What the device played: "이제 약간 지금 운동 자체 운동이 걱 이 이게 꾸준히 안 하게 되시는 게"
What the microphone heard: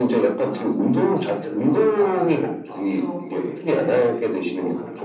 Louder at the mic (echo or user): echo